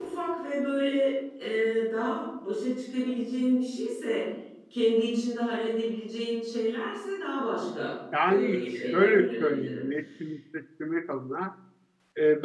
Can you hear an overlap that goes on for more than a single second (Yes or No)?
Yes